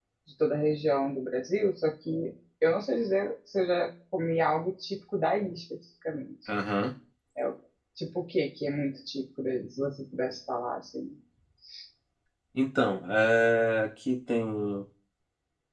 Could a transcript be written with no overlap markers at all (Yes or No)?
Yes